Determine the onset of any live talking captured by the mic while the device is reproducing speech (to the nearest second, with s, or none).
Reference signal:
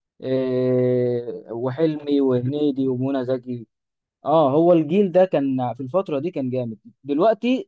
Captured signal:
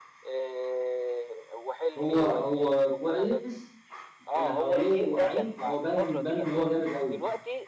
2 s